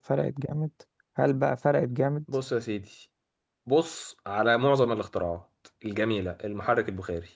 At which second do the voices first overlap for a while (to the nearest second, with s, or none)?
none